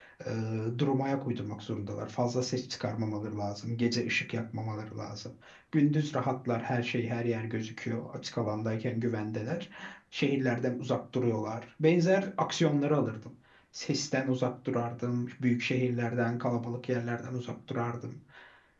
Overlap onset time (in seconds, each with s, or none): none